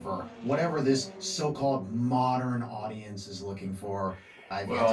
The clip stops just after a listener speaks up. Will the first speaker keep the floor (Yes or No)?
No